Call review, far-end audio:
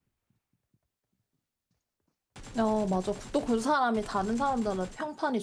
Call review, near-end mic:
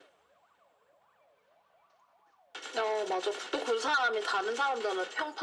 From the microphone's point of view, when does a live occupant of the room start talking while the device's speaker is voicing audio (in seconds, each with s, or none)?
none